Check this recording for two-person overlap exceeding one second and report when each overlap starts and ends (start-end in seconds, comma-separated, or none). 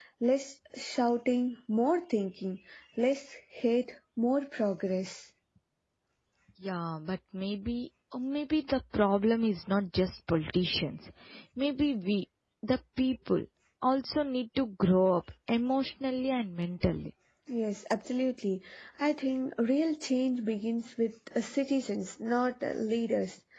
none